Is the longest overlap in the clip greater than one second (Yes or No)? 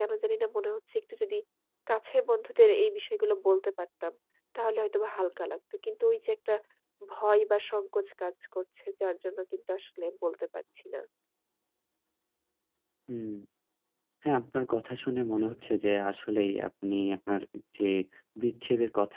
No